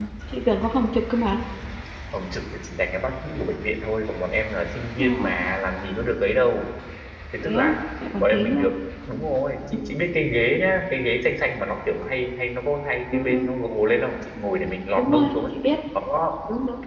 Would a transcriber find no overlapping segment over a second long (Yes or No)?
Yes